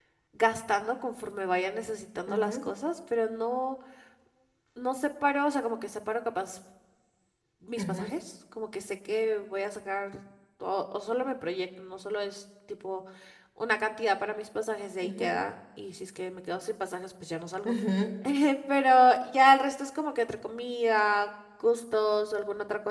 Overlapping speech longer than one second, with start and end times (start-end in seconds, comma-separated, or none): none